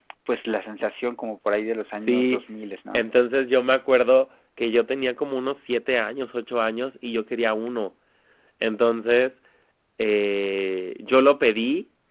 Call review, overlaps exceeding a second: none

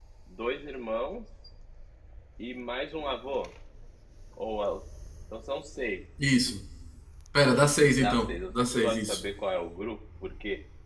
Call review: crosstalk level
present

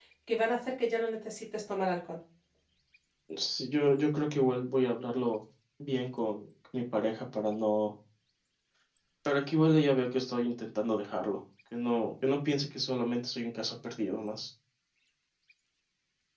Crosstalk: none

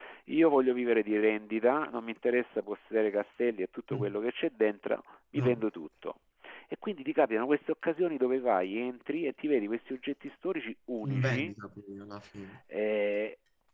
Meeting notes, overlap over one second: none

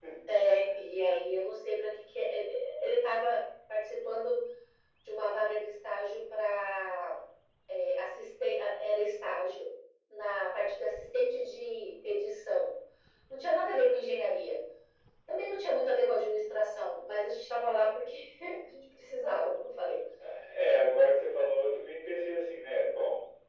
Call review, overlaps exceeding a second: none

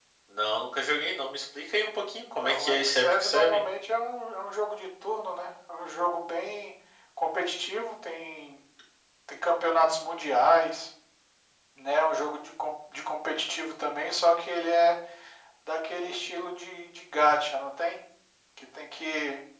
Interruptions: present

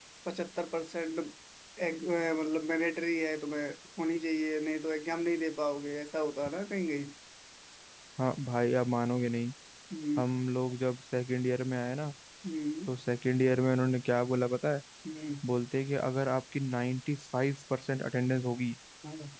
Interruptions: none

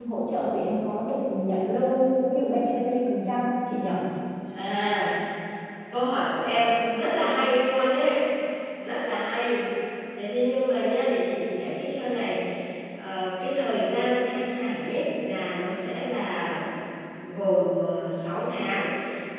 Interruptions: none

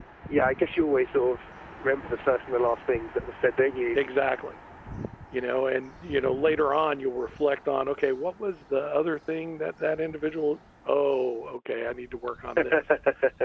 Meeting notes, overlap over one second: none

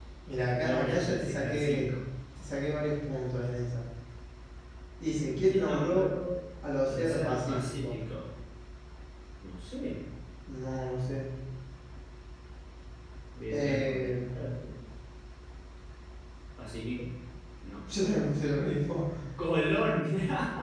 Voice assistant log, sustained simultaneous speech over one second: present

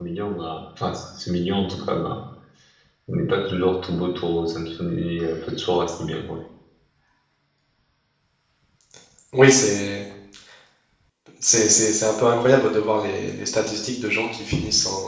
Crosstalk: none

